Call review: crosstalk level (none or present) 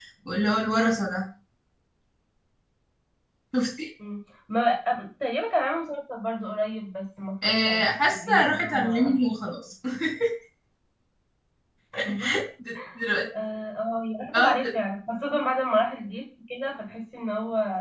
present